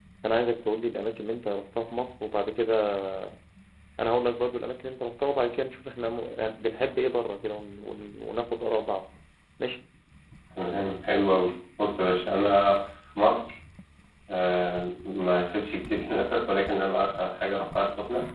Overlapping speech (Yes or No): No